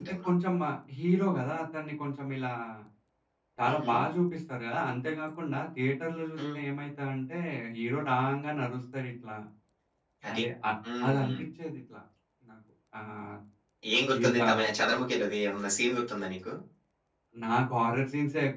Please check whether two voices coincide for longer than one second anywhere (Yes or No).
No